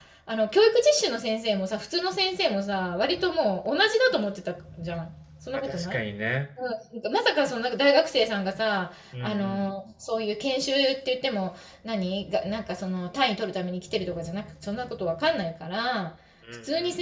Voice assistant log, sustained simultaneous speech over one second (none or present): none